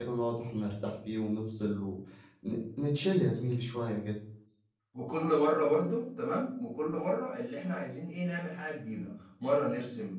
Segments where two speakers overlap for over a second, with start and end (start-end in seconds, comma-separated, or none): none